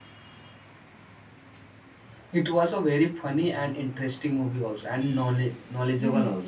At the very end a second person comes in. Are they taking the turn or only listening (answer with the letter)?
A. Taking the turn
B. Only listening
A